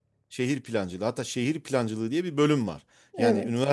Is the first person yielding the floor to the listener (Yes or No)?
No